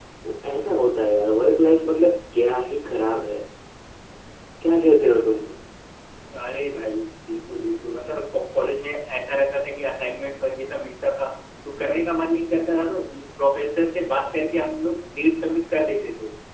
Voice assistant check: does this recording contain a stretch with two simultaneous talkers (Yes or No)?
No